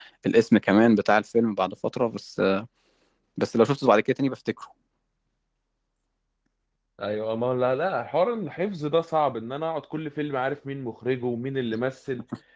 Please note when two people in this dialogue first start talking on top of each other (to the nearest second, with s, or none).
none